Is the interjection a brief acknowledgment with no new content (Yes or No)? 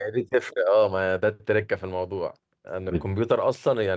Yes